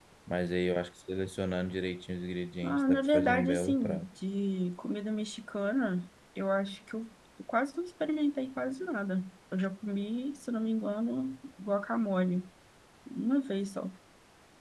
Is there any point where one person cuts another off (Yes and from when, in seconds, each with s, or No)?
Yes, from 2.6 s